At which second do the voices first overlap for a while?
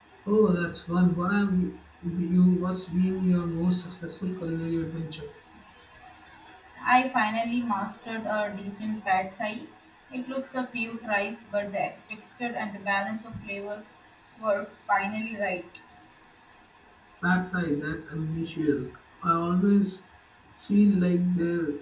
none

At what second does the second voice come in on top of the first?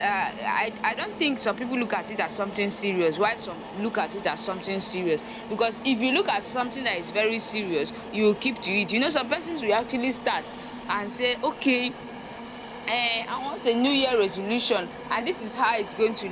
none

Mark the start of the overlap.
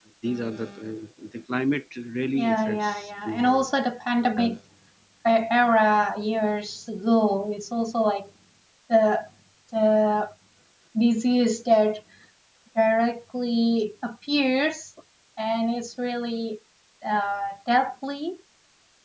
2 s

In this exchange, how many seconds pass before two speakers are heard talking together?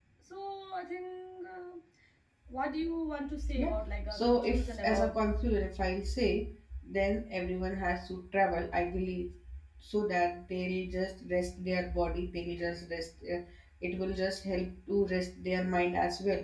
4 s

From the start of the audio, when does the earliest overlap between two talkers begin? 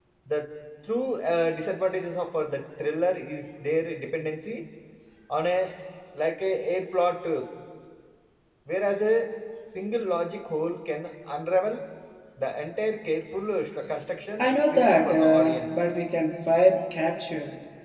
14 s

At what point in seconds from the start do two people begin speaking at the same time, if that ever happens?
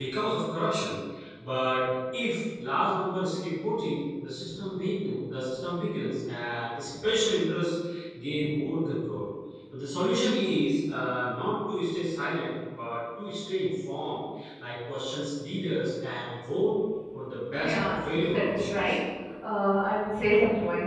18 s

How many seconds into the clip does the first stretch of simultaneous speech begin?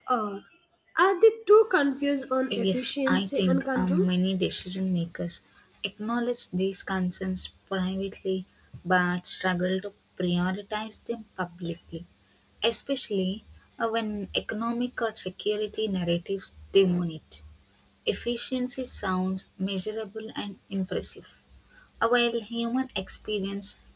2 s

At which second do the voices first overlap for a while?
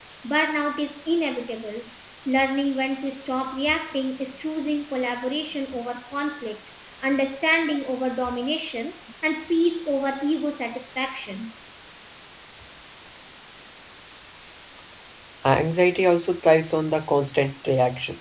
none

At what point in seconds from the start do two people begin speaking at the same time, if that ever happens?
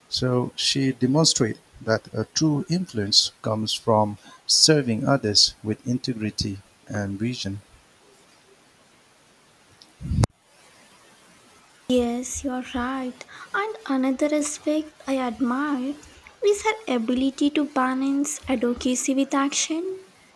none

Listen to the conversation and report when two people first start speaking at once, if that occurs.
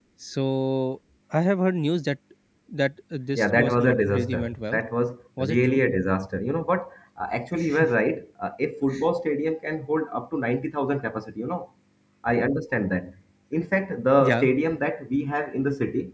3 s

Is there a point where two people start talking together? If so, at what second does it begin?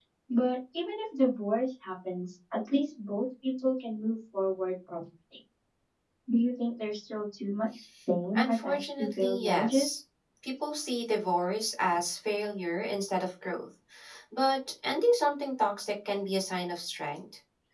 8 s

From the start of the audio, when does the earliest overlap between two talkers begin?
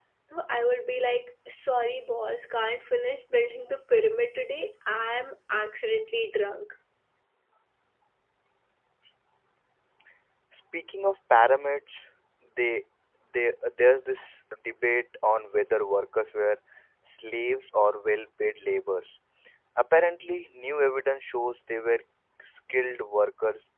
none

